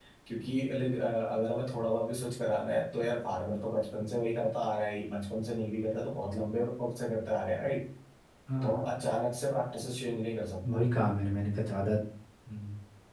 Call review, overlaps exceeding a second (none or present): none